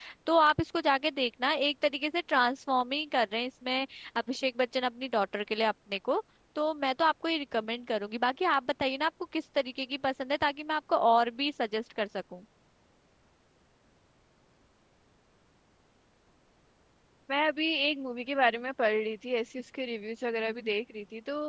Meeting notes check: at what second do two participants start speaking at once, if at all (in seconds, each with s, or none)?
none